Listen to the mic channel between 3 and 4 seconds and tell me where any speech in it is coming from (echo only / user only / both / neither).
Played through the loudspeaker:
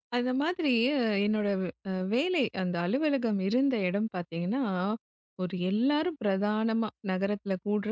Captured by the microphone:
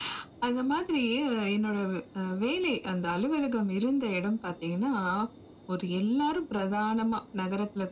echo only